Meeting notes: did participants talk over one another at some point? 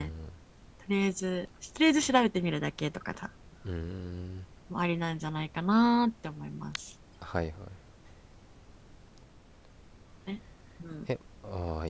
No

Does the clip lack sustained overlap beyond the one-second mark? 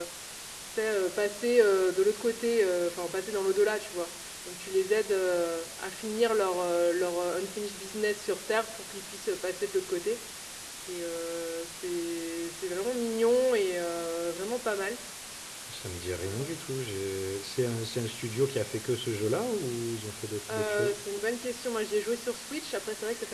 Yes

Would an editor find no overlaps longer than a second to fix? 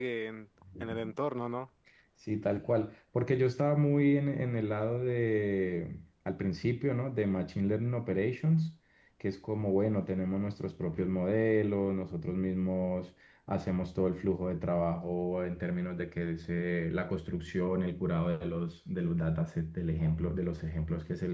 Yes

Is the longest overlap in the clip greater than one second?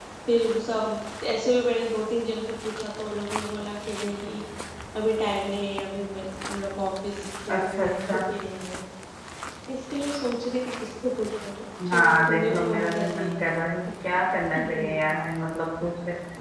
Yes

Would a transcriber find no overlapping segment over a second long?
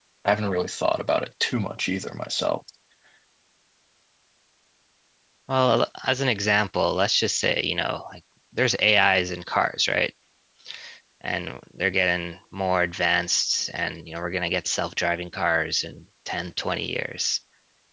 Yes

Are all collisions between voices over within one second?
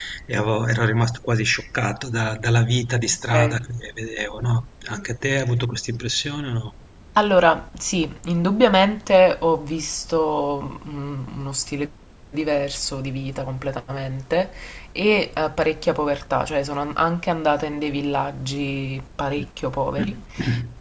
Yes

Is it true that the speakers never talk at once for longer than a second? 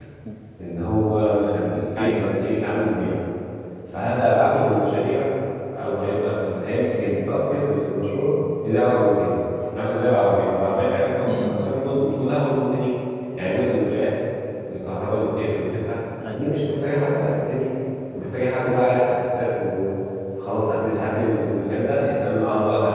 Yes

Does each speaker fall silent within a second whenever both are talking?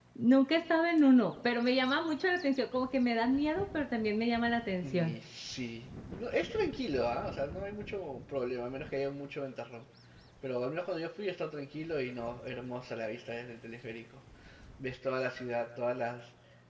Yes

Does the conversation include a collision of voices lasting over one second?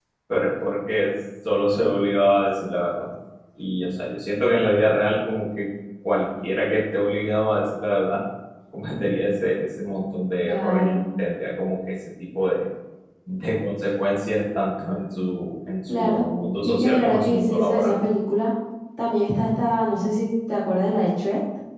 Yes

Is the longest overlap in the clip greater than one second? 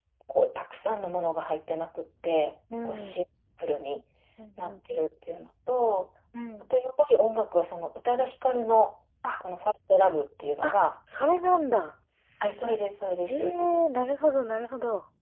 No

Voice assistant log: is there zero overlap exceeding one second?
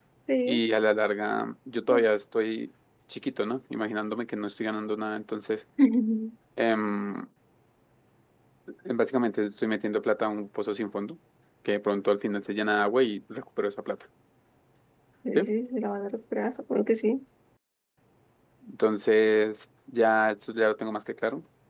Yes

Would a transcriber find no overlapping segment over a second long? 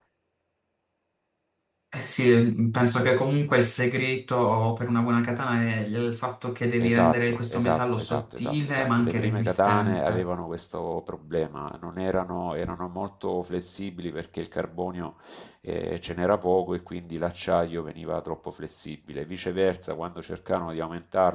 No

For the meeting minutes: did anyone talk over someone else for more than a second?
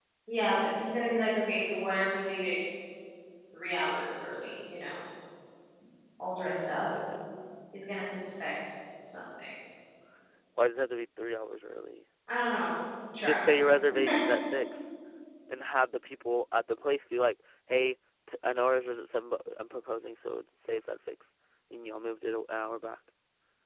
No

